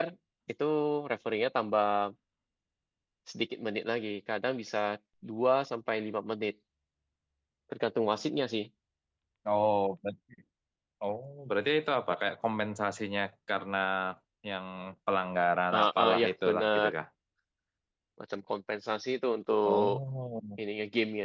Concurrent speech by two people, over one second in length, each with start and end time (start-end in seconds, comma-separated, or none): 15.7-16.9